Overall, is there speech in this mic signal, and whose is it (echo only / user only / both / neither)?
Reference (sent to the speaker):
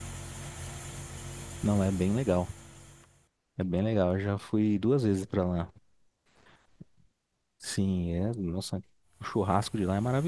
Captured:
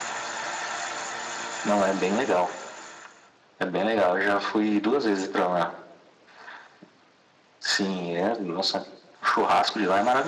echo only